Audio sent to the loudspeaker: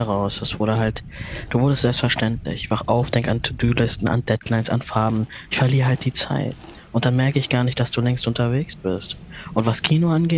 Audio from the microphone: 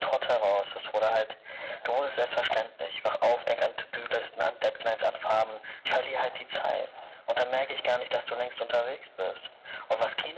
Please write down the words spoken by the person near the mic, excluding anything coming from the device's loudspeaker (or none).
none